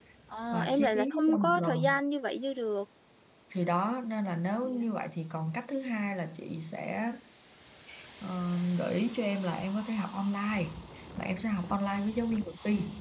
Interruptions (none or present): present